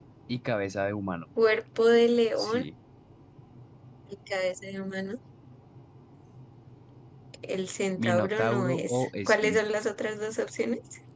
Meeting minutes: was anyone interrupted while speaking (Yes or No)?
Yes